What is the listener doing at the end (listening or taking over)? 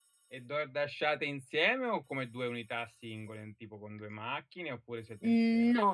taking over